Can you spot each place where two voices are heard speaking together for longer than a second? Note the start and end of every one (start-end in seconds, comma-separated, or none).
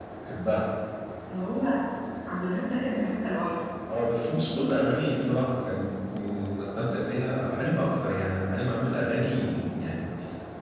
none